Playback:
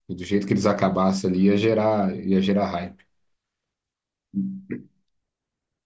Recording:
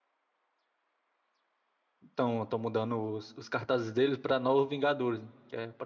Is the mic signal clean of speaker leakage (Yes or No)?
Yes